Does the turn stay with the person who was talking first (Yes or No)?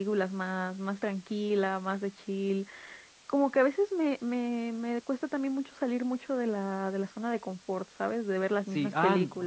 No